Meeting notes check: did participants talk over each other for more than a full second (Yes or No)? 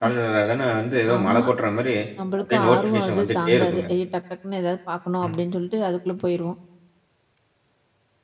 Yes